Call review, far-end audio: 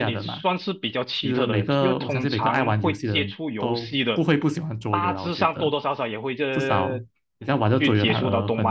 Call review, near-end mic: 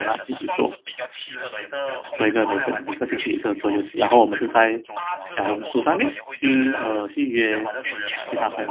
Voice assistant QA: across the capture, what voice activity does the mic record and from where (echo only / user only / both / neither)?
both